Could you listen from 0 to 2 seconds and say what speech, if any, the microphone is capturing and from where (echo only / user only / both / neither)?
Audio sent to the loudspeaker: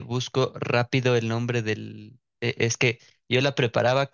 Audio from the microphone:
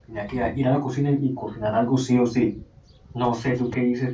user only